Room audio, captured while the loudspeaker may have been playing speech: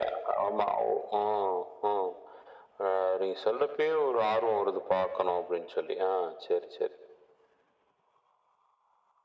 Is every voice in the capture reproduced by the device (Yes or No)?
Yes